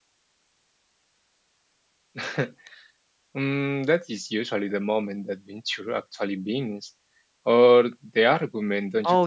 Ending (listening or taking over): taking over